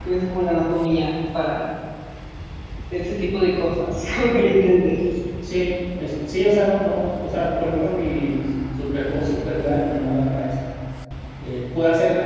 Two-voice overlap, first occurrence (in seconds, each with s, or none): none